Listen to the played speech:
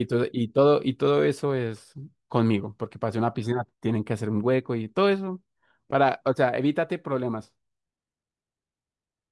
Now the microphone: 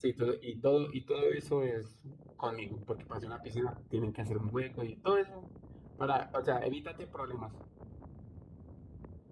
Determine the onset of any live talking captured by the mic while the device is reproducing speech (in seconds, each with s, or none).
none